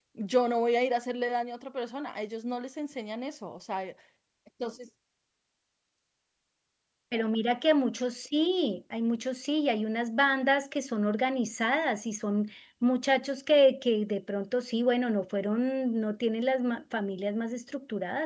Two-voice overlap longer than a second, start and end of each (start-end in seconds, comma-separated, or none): none